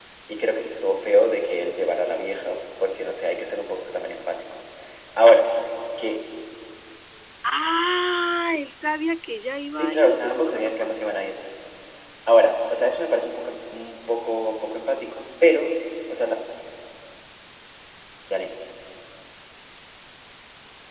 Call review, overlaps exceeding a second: present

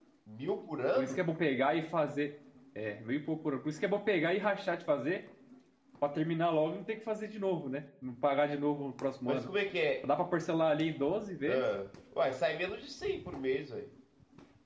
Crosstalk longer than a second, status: none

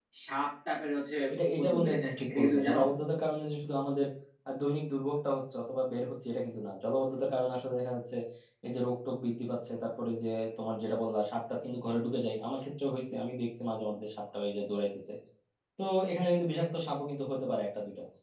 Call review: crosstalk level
present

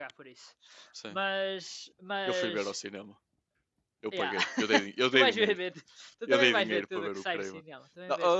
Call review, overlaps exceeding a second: present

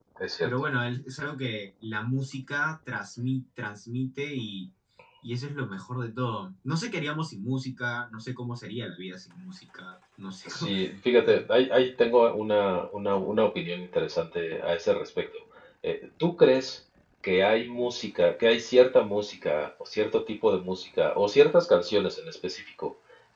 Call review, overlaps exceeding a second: none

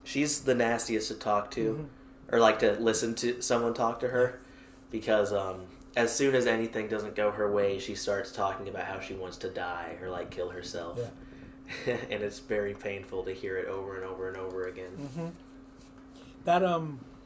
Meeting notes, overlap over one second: none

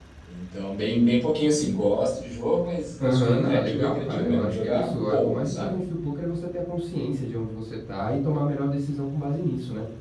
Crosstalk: present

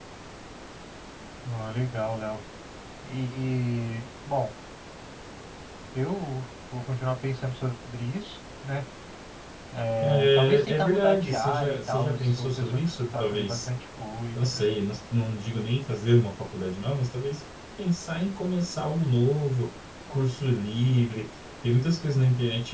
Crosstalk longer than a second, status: present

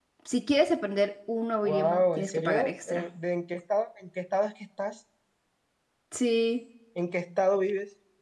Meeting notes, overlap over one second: present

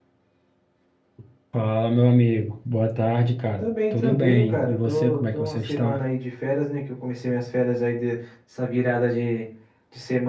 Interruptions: present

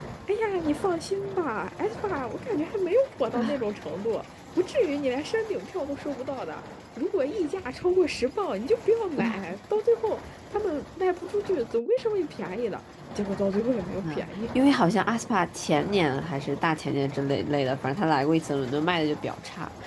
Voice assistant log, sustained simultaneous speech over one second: none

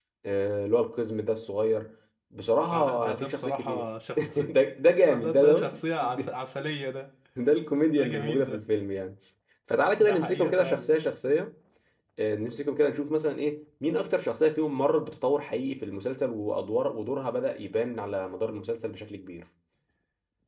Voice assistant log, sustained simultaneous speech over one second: present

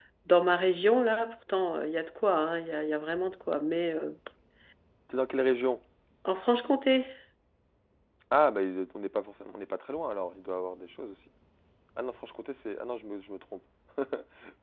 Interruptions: none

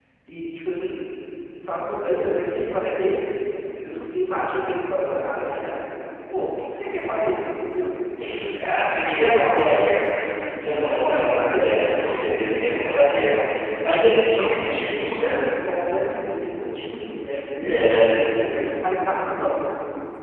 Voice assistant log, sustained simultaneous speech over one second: present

